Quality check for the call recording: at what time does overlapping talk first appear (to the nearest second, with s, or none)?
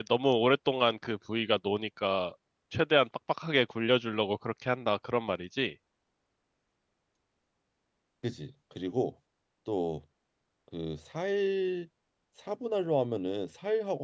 none